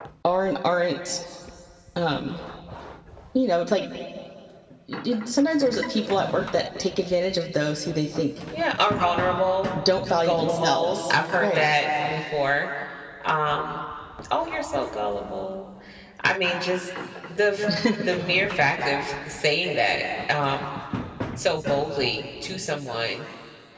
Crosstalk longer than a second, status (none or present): present